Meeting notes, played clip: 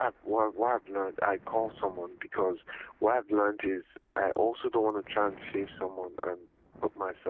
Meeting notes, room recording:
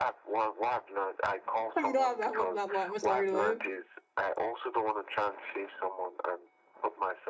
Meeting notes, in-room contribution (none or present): present